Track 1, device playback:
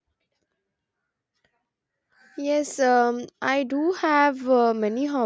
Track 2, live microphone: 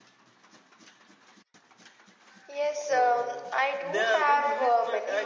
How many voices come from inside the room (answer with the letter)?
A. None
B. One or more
B